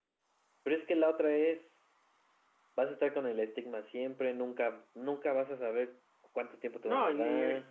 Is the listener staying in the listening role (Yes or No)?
No